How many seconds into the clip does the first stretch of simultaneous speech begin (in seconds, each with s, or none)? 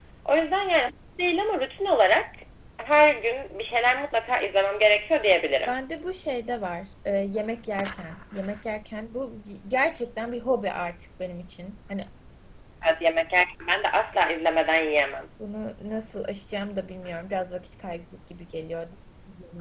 none